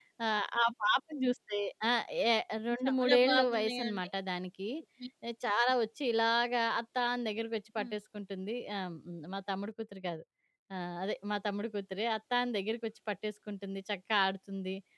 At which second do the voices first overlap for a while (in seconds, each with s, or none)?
2.9 s